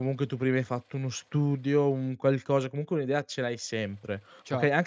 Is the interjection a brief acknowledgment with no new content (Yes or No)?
Yes